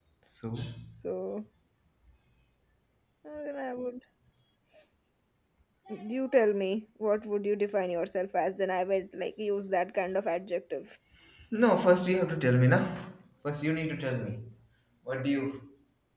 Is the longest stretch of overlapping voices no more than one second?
Yes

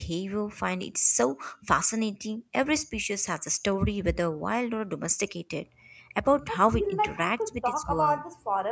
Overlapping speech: Yes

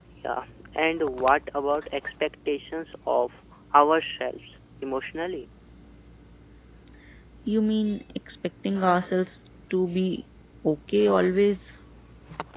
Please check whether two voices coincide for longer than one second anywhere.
No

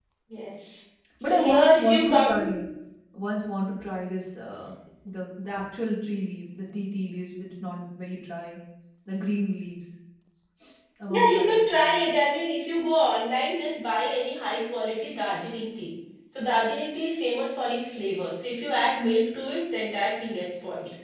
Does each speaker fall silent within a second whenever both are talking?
No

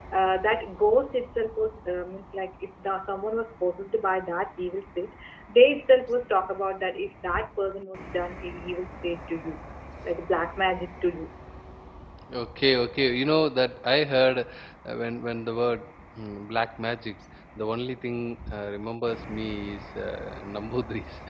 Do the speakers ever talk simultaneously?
No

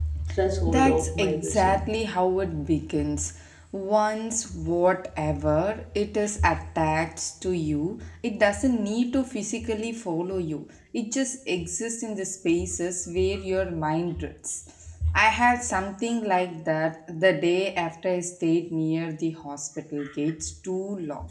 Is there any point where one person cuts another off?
Yes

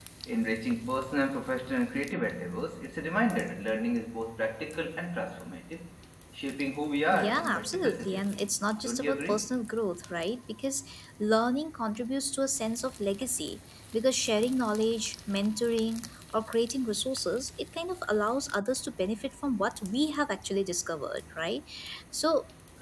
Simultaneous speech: Yes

